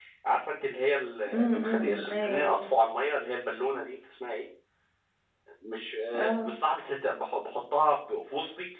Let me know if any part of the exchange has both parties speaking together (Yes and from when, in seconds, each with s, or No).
Yes, from 1.3 s